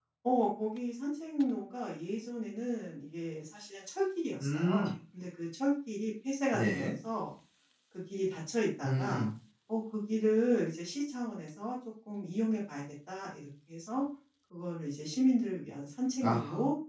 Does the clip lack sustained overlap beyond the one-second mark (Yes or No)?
Yes